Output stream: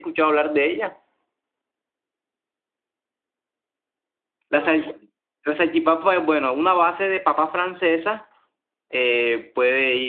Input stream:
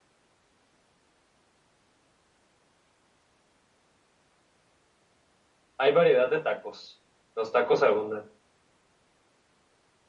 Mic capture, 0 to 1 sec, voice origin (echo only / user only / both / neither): neither